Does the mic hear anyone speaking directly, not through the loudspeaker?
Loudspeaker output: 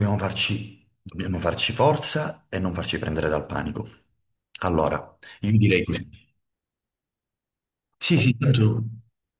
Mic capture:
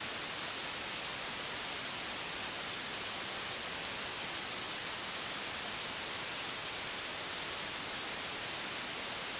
No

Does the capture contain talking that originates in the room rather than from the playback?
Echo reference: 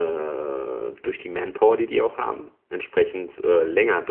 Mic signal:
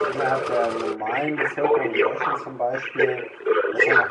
Yes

